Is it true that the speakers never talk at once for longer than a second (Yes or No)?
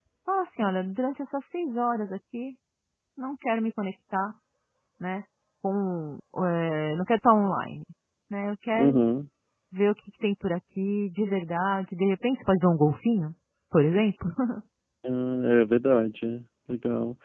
Yes